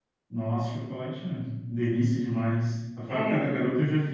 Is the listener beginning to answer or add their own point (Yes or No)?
No